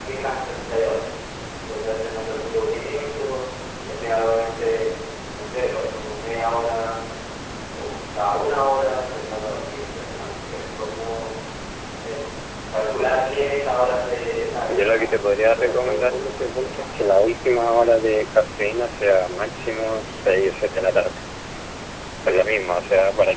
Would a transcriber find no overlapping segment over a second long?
No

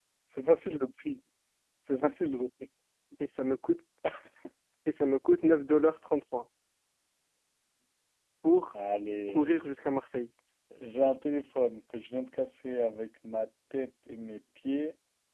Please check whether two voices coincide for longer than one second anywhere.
No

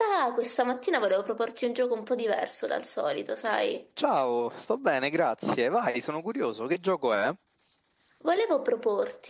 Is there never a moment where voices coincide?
Yes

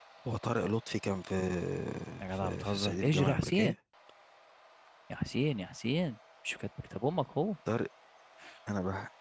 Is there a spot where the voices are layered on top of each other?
Yes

